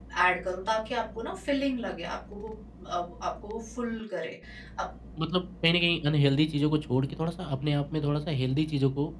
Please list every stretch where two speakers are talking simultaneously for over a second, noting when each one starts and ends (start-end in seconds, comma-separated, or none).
none